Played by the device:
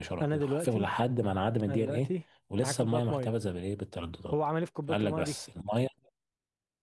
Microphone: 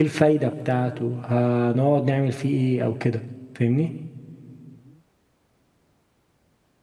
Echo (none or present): none